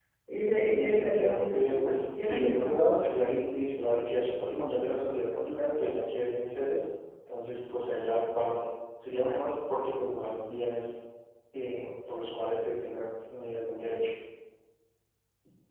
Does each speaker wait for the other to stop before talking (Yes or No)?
No